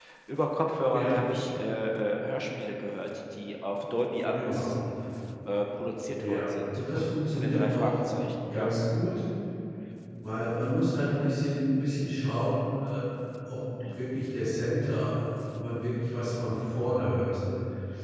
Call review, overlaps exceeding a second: present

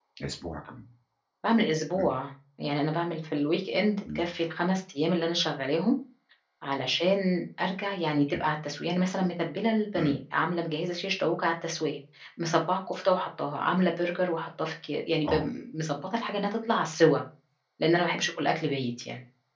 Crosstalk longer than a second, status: none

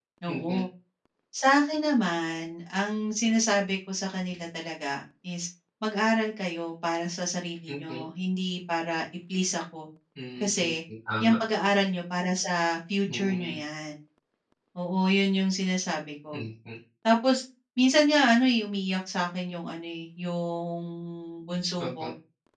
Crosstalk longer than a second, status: none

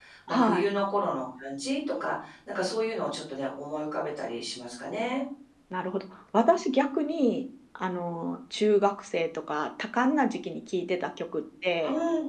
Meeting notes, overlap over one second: none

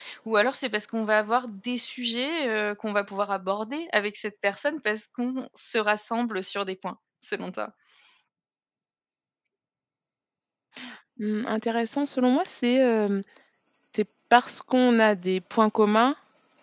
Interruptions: none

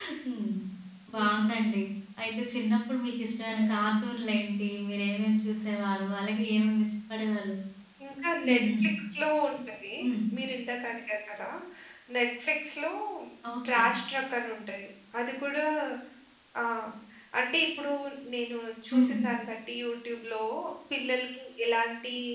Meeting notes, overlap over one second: none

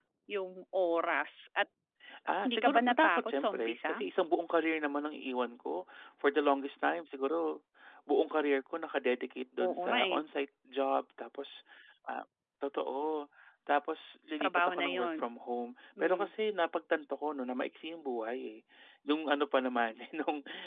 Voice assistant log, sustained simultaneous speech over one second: present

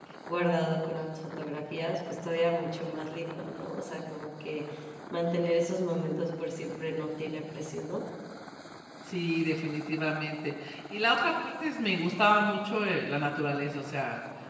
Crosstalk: none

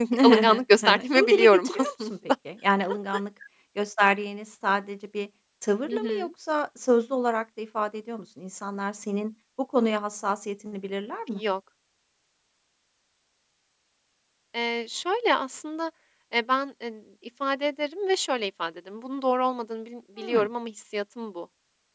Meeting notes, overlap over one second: present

